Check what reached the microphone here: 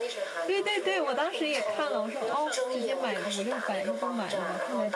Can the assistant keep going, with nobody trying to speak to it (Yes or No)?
No